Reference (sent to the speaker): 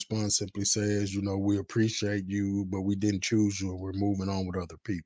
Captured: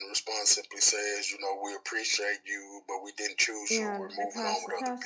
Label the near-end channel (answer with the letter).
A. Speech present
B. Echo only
A